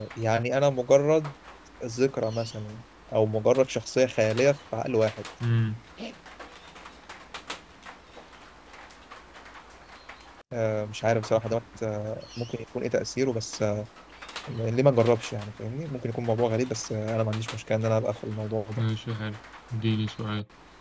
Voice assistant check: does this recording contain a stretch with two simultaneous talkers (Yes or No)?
No